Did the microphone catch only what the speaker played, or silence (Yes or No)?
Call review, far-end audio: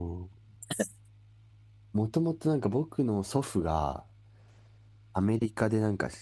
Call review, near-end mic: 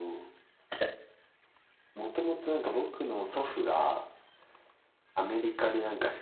Yes